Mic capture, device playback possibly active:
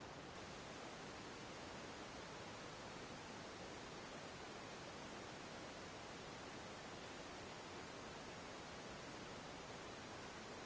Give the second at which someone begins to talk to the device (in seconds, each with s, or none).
none